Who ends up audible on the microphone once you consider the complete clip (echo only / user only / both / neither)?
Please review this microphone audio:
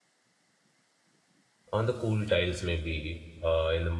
user only